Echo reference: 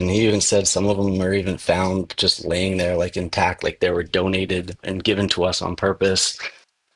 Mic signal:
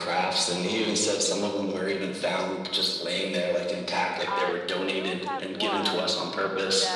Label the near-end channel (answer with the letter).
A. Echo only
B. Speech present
B